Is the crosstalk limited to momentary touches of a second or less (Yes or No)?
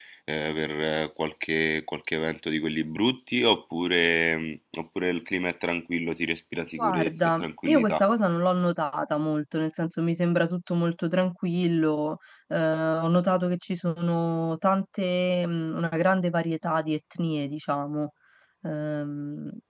No